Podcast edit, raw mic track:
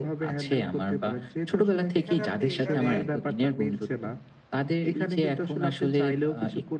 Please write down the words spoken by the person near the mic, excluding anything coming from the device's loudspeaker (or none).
এখানে আপনি এখানে